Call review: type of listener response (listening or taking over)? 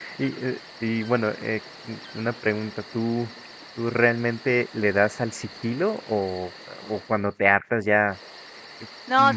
taking over